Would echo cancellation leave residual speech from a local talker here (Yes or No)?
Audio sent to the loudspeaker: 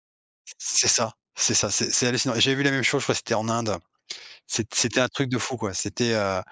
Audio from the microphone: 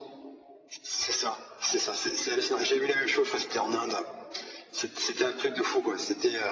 No